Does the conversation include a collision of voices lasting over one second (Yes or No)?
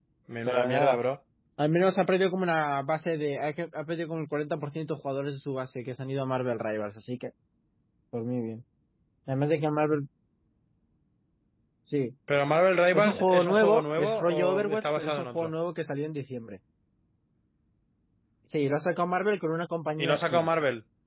Yes